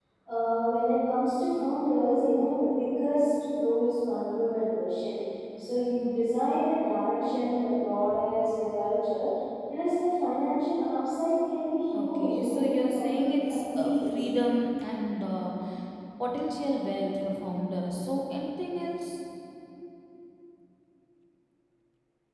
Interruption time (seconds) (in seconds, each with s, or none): 11.9 s